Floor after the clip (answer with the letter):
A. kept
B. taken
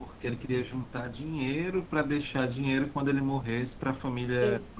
B